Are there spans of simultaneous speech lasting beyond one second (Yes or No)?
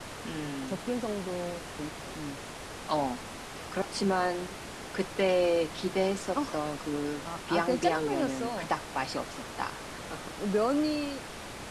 Yes